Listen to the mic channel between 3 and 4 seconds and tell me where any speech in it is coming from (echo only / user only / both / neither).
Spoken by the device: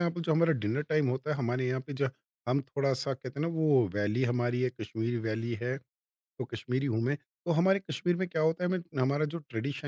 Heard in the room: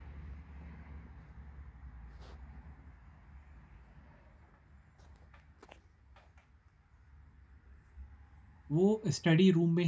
neither